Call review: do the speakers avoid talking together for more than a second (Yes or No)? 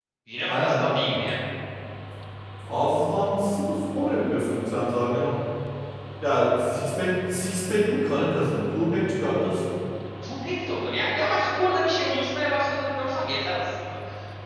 Yes